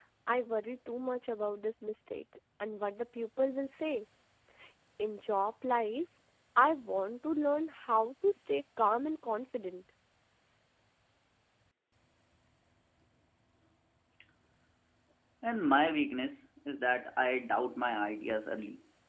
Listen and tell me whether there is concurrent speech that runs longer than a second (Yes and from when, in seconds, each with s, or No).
No